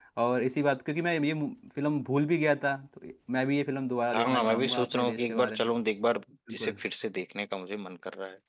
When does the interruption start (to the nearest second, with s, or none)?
4 s